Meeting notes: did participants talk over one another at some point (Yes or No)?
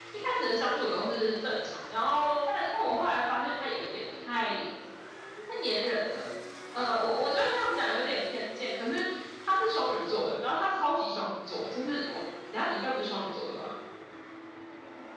No